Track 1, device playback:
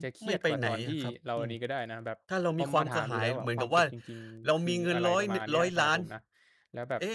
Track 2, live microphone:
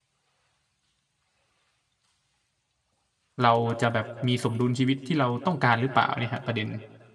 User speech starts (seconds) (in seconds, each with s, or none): 3.4 s